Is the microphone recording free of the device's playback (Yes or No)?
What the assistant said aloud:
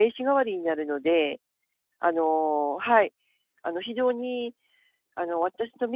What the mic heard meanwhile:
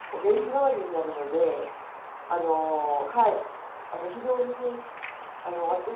No